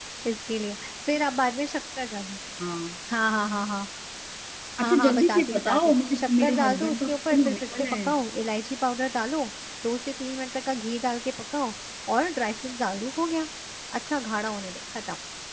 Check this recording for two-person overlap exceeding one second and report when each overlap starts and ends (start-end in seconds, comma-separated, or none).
4.8-8.1